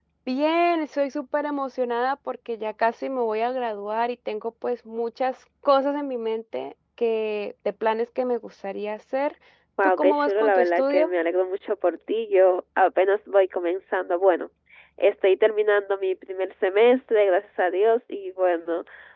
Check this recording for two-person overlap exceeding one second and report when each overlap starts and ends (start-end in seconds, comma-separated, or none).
9.8-11.1